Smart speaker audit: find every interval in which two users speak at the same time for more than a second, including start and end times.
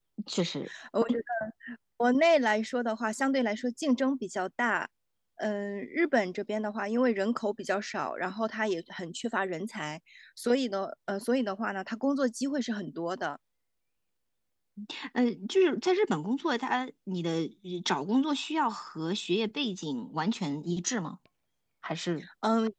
none

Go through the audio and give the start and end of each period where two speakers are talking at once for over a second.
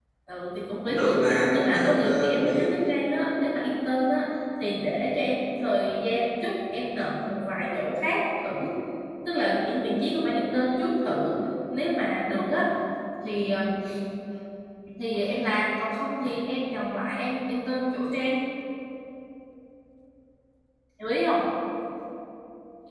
0.8-2.7

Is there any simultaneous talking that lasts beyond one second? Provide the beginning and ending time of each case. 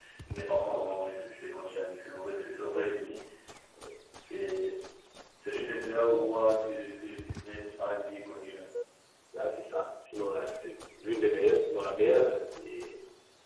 none

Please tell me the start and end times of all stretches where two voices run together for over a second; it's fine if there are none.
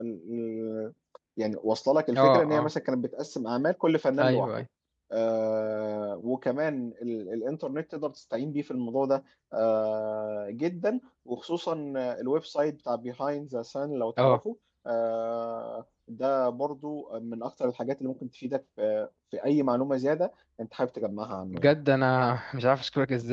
none

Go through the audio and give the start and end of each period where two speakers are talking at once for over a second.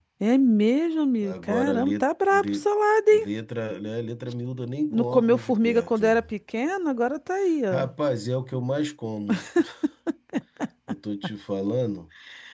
1.2-2.7, 4.9-6.1

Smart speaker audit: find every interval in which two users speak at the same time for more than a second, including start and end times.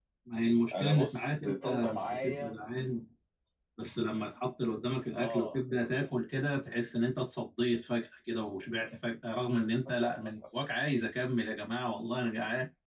0.7-2.6

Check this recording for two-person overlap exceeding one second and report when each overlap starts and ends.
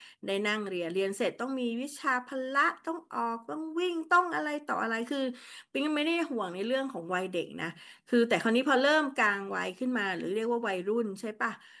none

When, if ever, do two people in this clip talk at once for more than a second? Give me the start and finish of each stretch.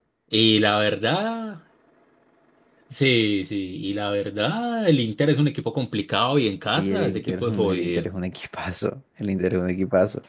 6.6-8.1

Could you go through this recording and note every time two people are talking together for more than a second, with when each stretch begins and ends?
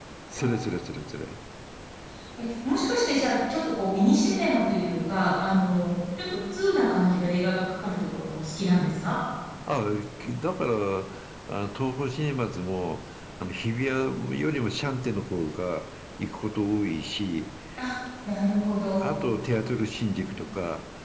none

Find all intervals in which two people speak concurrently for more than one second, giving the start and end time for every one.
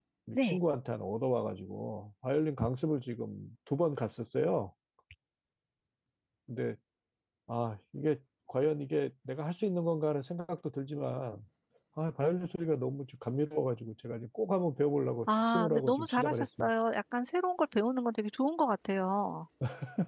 15.3-16.7

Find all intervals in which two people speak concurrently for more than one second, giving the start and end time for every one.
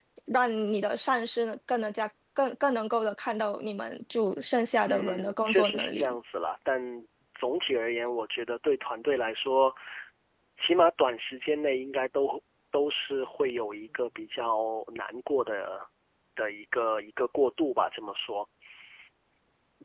4.9-6.2

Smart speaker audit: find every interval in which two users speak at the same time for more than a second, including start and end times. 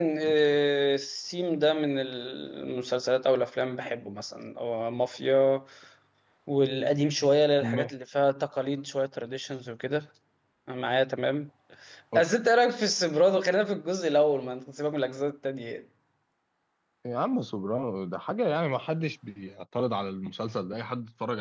none

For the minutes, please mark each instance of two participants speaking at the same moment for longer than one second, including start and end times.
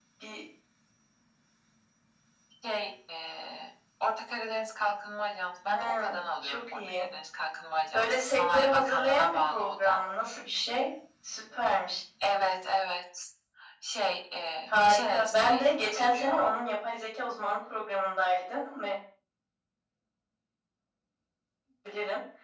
5.7-7.1, 7.9-10.0, 14.7-16.3

